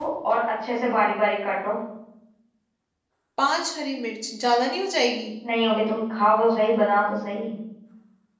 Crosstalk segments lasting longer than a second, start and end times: none

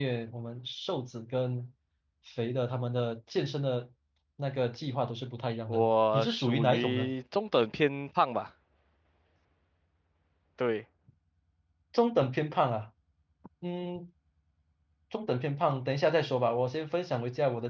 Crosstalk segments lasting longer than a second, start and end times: 5.7-7.1

